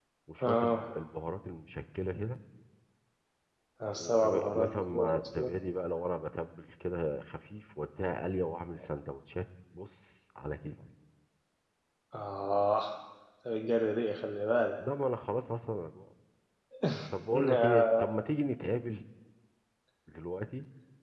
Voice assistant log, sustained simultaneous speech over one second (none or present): present